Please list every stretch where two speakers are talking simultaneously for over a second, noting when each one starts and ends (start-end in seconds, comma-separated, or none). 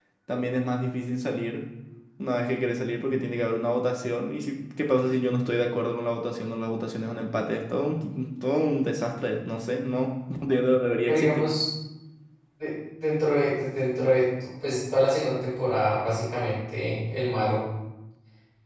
none